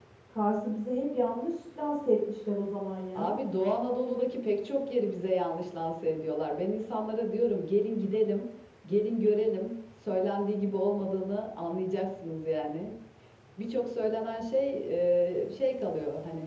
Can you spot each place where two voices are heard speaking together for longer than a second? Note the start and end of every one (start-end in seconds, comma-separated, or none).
none